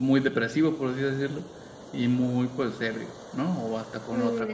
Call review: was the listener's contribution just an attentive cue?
No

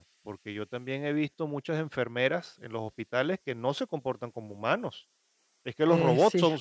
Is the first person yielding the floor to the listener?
No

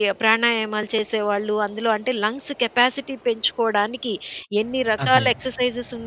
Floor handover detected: No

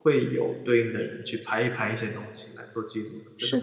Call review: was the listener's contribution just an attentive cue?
No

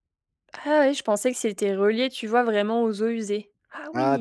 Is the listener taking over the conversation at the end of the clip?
Yes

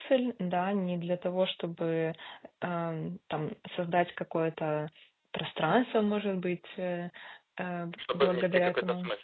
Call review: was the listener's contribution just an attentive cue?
No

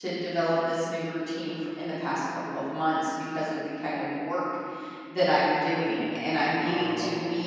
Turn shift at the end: No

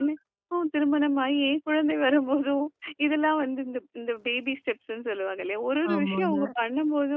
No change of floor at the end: Yes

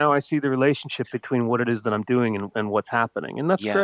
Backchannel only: No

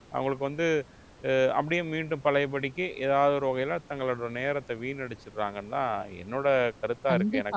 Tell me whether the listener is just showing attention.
No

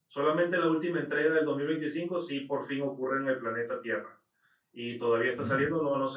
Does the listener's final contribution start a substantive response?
No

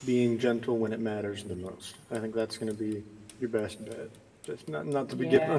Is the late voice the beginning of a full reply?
No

